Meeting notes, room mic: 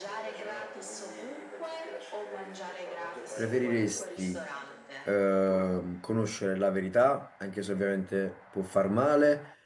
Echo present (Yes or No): Yes